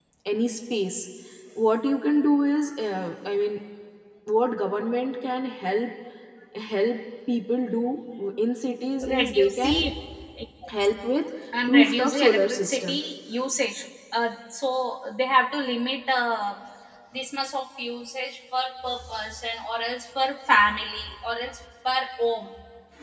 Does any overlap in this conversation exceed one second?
Yes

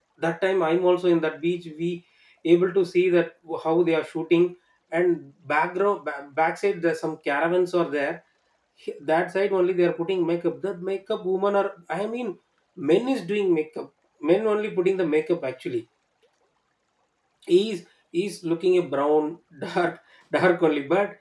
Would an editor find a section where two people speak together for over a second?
No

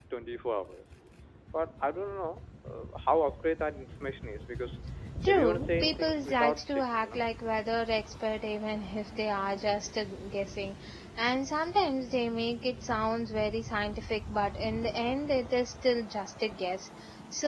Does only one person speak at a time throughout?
No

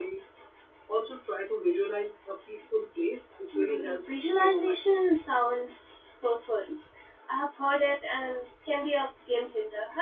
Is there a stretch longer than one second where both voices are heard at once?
Yes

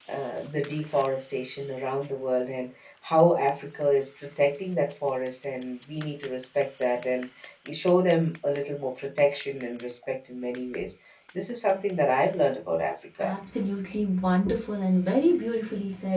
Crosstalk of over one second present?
No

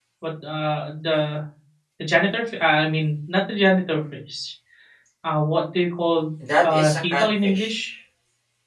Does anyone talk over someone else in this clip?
Yes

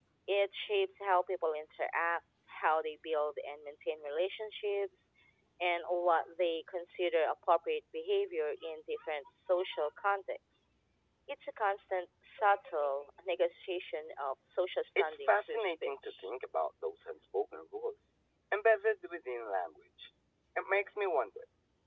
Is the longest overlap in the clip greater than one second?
Yes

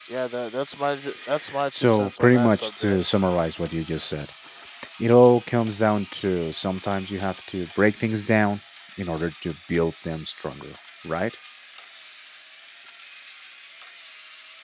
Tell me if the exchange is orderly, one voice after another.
No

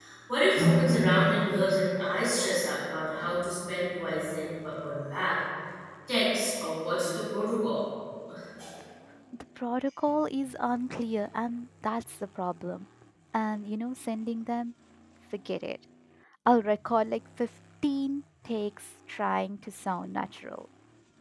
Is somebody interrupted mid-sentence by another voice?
No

